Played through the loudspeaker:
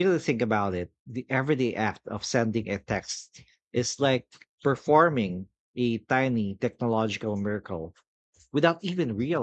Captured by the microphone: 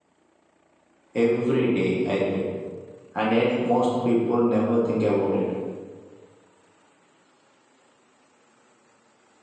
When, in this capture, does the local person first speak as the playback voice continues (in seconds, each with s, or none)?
1.1 s